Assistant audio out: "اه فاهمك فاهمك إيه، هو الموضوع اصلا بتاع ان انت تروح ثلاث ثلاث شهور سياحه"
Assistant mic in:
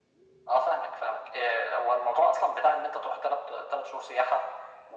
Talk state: echo only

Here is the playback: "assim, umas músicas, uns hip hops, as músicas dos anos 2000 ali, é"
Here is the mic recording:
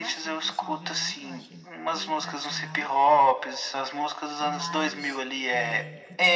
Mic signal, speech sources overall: both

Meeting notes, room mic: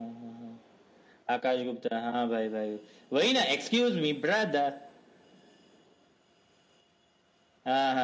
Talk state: echo only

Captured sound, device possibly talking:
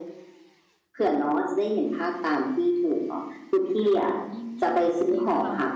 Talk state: both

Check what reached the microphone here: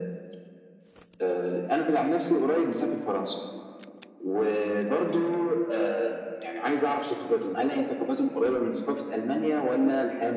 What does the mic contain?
echo only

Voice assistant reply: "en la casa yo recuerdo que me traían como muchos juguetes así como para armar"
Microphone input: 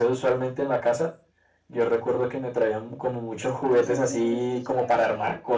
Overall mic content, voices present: both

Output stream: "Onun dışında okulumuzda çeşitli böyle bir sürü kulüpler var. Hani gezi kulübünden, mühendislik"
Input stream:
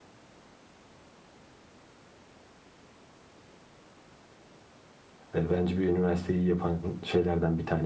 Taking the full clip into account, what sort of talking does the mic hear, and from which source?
user only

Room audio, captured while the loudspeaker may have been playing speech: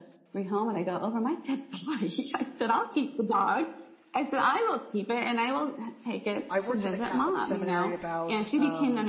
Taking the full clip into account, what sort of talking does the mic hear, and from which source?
both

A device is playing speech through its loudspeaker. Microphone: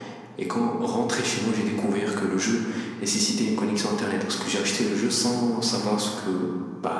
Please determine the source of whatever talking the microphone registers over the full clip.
echo only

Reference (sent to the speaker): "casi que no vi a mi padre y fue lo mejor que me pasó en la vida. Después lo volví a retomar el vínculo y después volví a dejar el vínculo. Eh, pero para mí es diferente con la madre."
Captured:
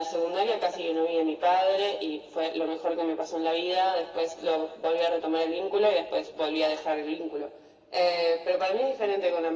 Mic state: echo only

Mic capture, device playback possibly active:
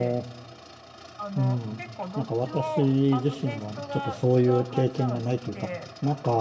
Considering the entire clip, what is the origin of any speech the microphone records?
both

